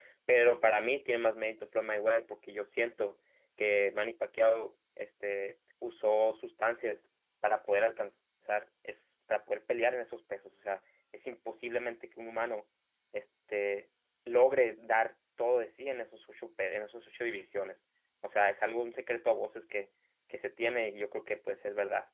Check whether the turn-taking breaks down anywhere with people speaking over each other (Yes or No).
No